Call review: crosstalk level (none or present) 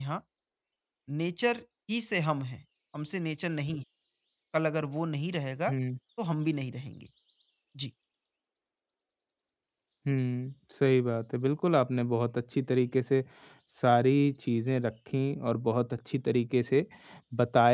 none